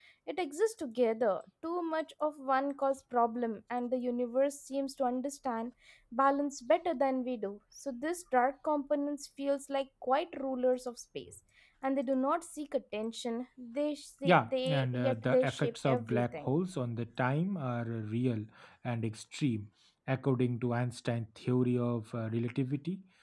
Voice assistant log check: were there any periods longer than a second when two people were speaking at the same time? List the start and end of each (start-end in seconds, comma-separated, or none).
14.2-16.5